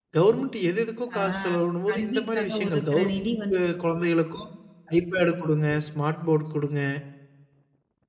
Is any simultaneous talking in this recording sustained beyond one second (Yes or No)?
Yes